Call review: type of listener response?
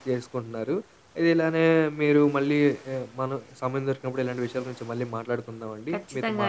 listening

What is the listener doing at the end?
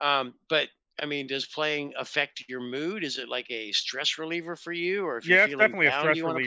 taking over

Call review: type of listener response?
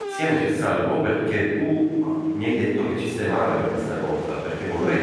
listening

